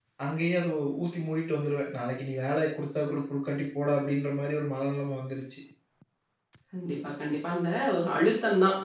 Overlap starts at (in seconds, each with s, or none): none